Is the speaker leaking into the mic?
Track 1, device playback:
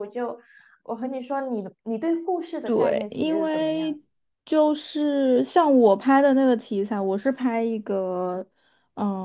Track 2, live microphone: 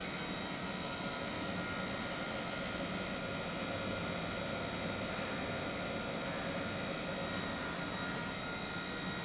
No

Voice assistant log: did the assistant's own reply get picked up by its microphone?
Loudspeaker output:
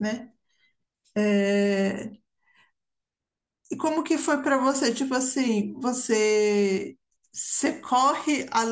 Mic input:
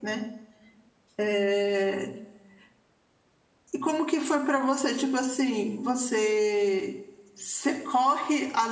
Yes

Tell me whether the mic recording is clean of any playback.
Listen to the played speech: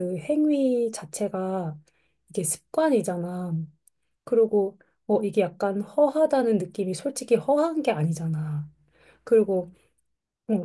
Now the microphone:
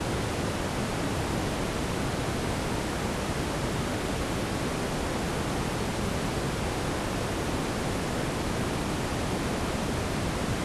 Yes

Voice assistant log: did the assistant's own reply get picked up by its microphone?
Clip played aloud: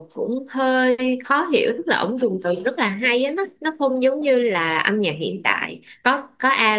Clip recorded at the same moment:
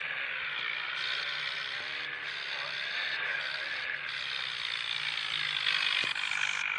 No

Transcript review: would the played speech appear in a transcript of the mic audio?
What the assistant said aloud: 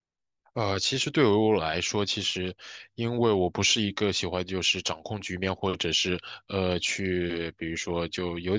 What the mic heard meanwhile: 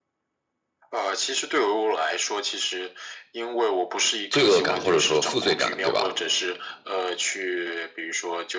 Yes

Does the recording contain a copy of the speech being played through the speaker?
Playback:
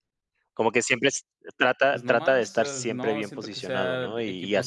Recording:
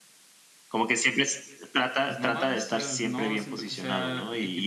Yes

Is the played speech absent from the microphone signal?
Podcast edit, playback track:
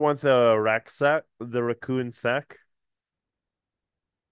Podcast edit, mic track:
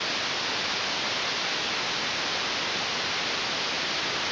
Yes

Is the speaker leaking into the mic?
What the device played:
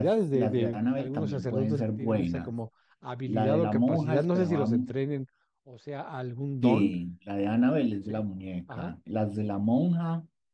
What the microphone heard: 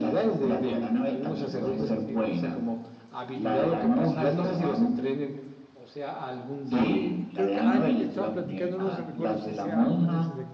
Yes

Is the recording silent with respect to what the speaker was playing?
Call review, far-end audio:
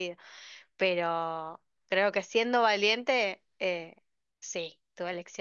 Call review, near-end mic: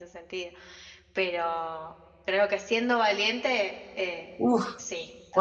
No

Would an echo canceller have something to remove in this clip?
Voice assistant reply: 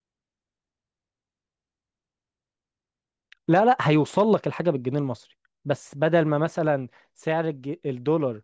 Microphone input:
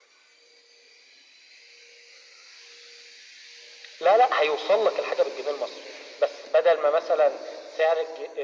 Yes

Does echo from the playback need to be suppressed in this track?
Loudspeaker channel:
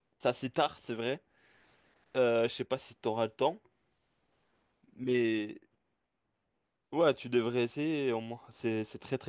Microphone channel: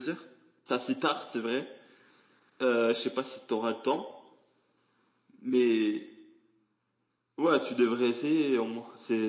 Yes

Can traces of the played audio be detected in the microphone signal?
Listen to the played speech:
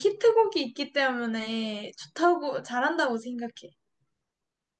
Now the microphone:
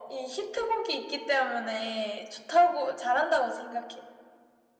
Yes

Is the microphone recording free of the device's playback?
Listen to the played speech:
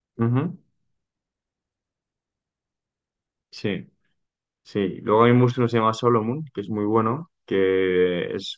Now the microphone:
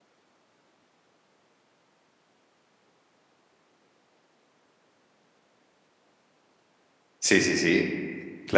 Yes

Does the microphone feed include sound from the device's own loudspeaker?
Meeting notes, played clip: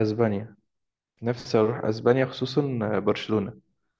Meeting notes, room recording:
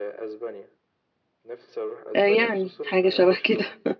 Yes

